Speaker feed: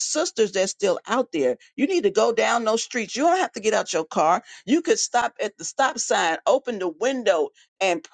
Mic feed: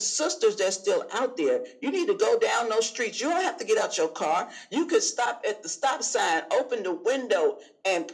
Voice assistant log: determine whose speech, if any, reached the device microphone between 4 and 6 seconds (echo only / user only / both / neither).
echo only